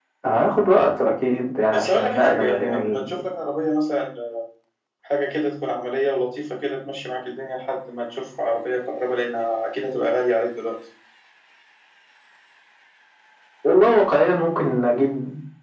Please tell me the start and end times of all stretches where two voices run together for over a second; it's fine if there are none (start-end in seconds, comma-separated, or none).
1.7-3.0